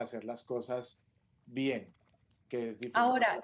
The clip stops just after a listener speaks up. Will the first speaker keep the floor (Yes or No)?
No